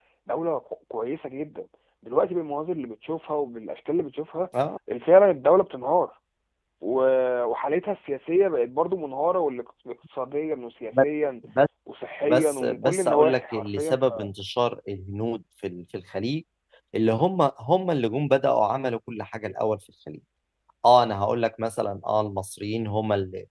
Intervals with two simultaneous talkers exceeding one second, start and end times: 12.2-14.0

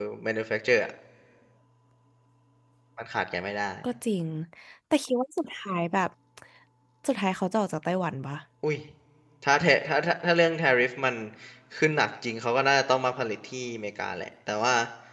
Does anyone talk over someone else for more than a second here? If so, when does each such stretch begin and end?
none

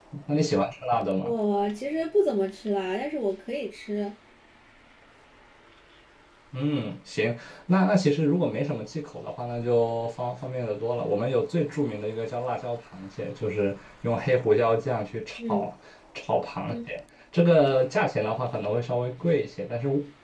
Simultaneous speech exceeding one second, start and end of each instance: none

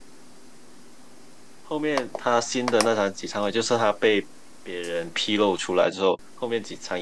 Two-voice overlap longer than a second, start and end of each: none

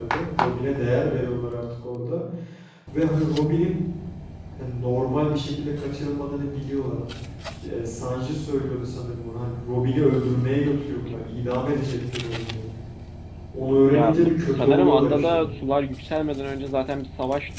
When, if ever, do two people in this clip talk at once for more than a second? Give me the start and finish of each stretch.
13.9-15.5

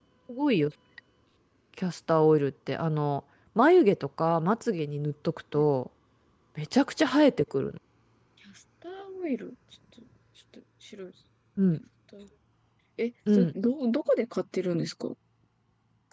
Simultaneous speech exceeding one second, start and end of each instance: none

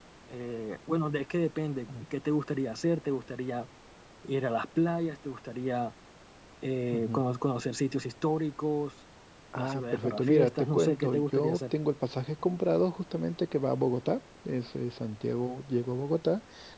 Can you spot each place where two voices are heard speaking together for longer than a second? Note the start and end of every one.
9.6-11.7

